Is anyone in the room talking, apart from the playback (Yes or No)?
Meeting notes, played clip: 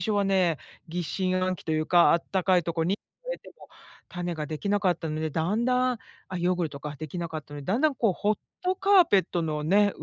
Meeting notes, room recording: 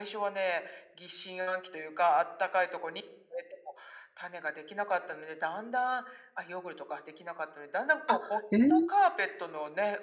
Yes